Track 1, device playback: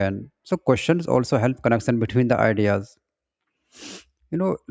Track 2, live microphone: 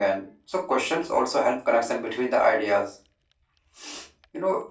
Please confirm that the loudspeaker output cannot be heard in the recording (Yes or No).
No